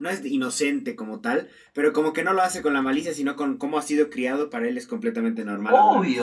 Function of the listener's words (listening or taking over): taking over